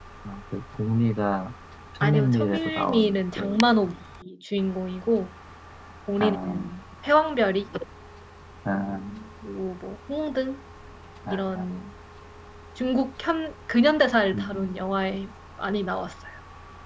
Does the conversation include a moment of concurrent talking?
Yes, from 2.0 s

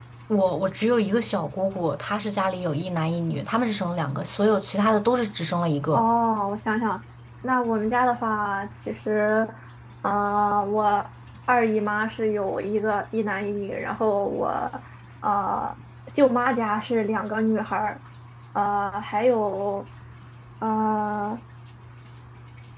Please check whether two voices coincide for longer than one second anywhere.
No

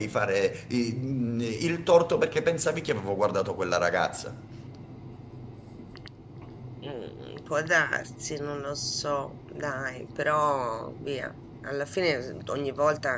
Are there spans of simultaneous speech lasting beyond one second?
No

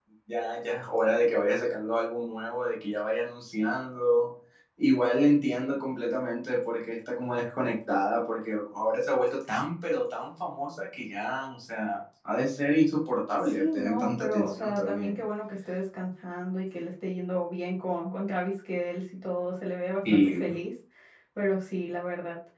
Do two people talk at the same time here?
Yes, from 13.4 s

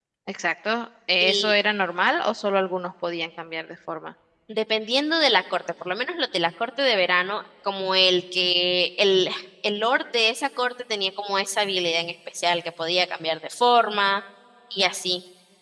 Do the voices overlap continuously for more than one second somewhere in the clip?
No

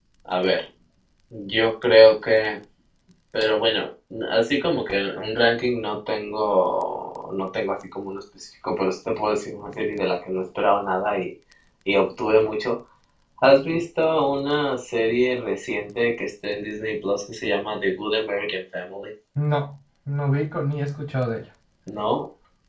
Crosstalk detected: No

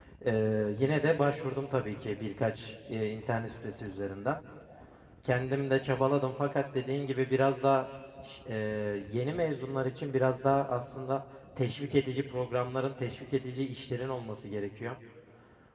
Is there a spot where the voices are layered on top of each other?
No

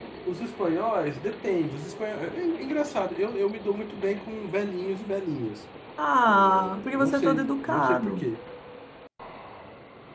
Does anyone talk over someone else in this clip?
Yes, from 6.3 s

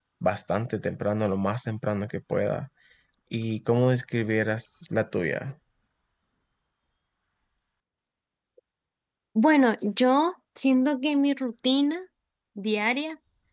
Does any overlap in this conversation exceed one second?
No

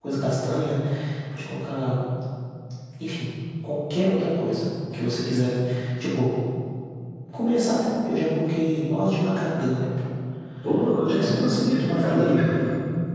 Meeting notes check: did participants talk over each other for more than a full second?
Yes, from 11.2 s

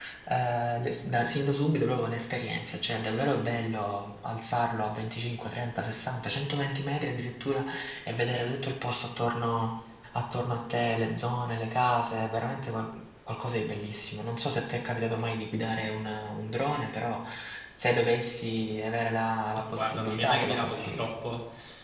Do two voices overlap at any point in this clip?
Yes, from 19.6 s

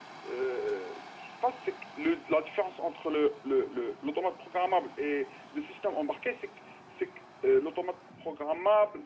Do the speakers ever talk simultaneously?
No

